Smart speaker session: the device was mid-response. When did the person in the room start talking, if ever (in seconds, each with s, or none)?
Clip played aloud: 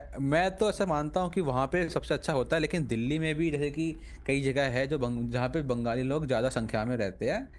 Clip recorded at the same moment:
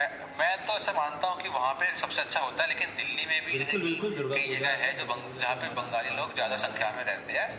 3.5 s